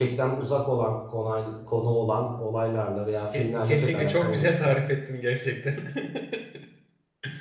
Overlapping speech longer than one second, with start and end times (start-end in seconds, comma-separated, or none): 3.4-4.7